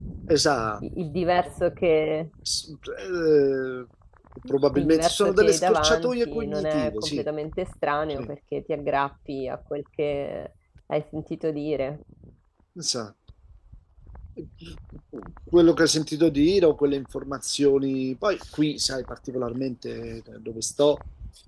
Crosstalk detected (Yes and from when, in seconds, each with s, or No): Yes, from 4.7 s